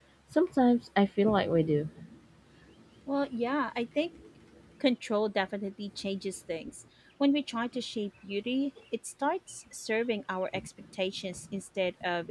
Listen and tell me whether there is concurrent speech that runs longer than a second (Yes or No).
No